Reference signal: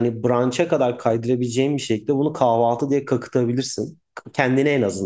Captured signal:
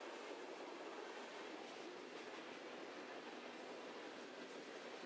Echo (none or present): none